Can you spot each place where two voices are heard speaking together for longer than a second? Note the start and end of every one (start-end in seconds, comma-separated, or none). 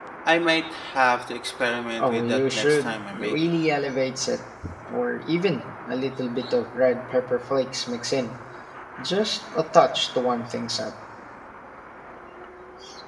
2.0-3.5